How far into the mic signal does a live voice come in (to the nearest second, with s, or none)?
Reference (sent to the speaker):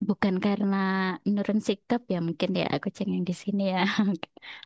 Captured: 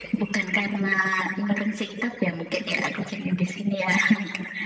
none